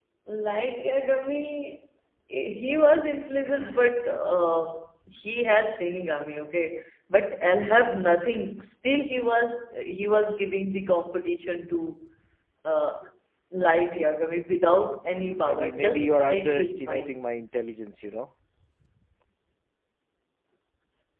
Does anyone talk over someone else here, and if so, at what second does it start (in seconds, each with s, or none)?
15.1 s